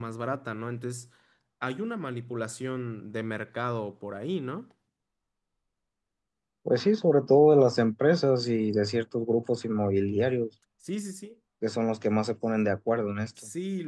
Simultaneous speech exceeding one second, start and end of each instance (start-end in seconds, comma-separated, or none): none